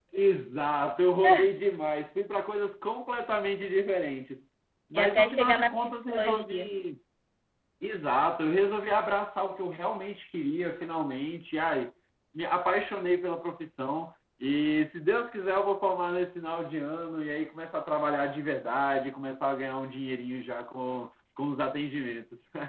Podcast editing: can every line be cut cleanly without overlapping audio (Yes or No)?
No